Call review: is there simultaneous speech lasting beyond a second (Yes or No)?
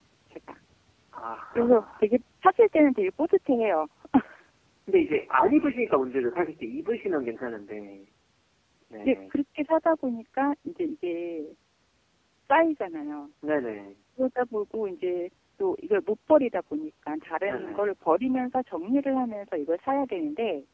No